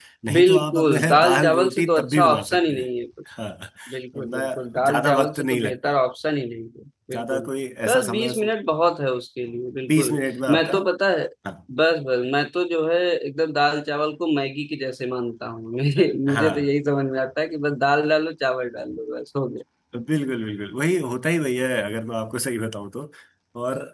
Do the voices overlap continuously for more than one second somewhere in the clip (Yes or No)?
Yes